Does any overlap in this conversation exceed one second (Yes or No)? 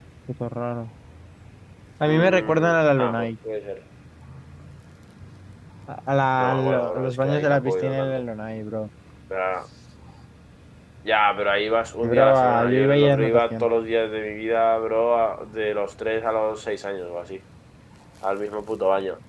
Yes